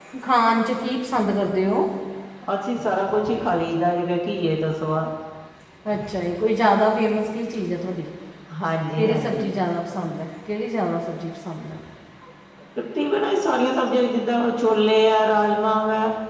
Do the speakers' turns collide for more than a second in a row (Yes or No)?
No